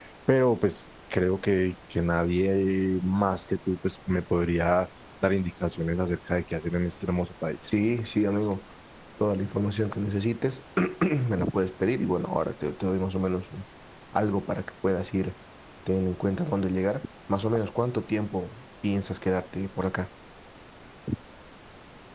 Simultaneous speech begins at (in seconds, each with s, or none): none